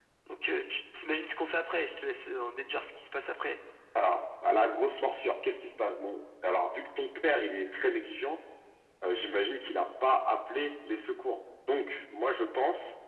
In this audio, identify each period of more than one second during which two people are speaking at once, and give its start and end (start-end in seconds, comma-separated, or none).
none